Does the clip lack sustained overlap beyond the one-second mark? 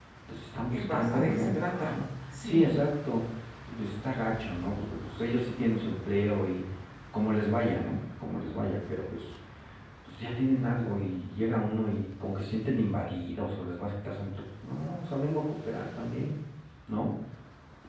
No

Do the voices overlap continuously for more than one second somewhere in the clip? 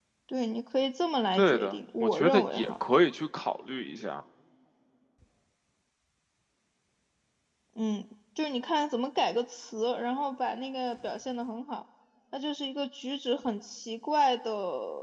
Yes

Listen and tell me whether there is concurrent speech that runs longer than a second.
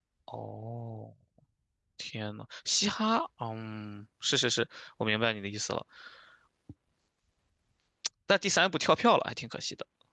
No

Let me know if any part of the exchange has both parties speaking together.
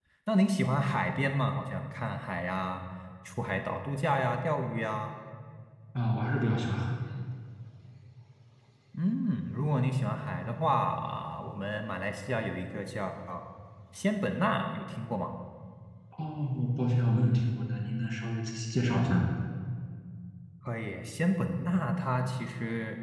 No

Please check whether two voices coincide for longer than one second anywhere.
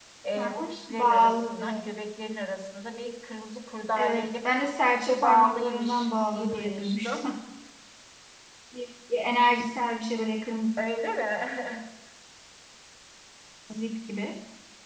Yes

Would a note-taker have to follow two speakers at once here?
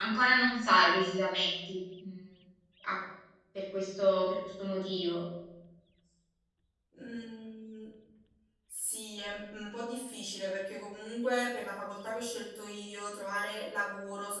No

